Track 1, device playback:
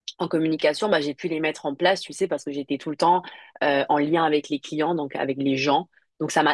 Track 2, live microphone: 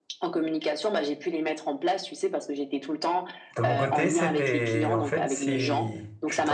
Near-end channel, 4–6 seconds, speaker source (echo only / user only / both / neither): both